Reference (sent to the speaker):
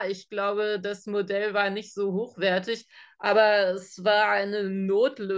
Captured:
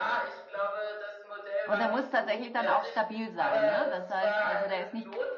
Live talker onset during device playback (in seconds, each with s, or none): 1.6 s